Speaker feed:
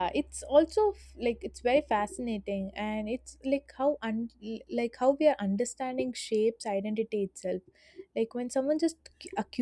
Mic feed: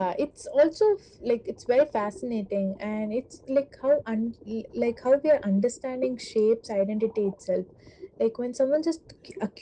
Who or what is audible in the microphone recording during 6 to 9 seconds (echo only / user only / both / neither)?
echo only